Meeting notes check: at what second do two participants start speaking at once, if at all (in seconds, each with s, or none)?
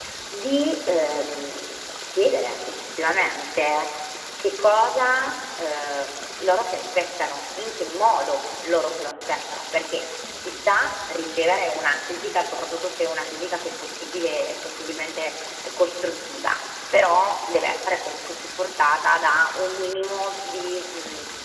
none